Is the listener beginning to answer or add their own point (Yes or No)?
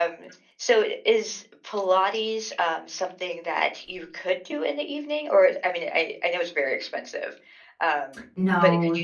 Yes